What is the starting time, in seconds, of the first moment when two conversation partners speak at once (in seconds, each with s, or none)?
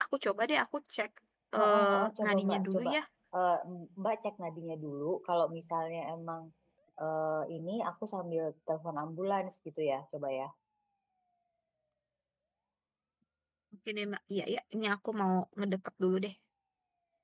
1.6 s